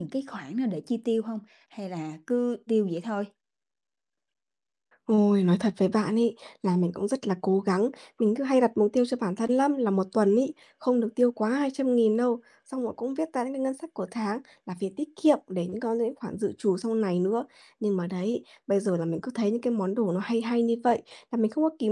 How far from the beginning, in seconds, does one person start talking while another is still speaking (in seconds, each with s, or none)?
none